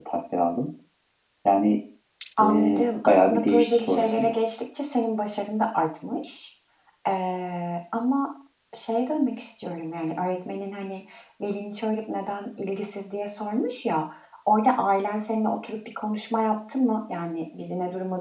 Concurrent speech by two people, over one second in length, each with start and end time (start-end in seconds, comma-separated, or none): 2.4-4.3